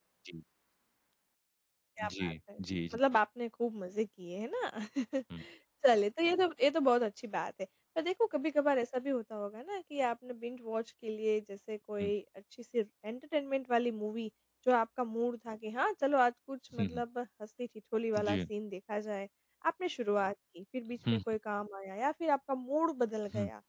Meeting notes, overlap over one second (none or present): none